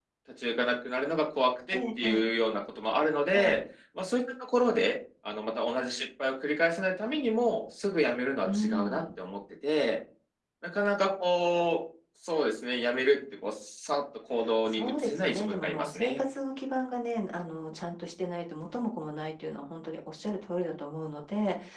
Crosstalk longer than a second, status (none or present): present